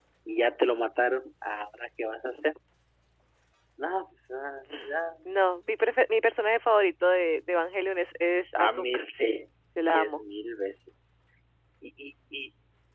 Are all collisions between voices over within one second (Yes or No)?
Yes